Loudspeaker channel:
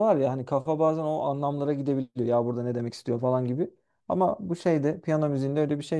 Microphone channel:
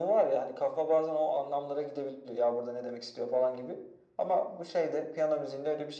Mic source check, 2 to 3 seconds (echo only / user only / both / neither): echo only